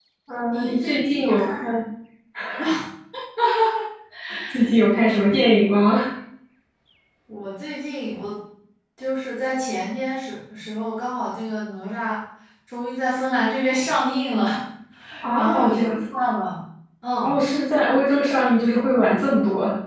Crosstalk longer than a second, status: present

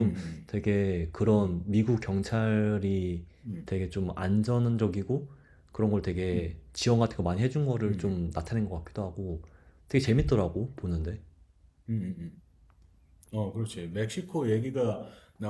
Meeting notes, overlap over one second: none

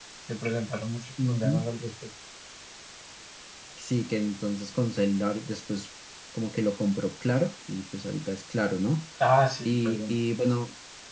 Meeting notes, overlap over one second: none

